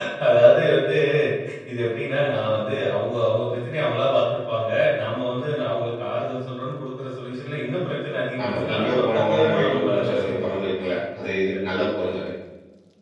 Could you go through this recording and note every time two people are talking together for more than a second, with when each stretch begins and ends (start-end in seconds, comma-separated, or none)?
8.4-11.5